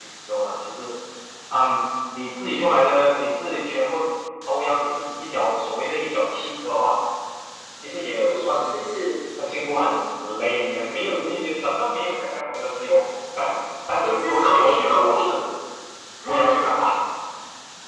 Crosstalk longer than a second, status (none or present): present